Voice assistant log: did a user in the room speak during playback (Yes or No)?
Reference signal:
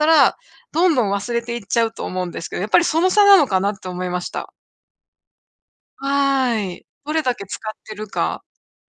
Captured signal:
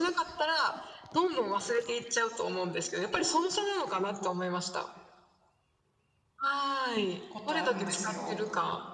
Yes